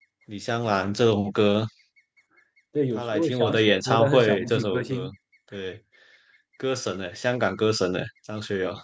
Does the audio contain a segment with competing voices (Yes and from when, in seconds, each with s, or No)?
Yes, from 3.0 s